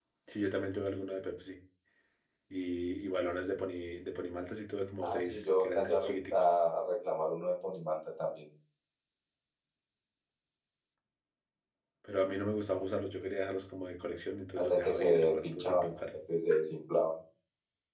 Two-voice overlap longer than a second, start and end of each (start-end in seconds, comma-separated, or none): 5.0-6.6, 14.6-16.0